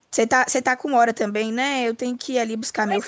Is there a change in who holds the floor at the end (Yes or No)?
Yes